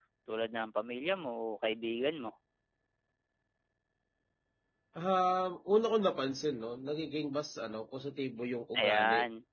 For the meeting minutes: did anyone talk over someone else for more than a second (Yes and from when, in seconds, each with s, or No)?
No